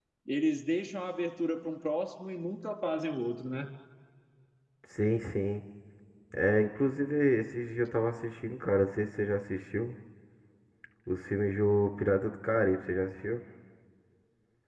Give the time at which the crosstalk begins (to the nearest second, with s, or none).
none